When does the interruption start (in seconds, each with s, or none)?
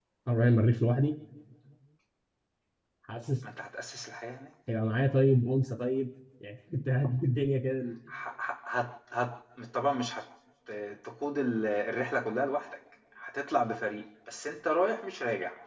none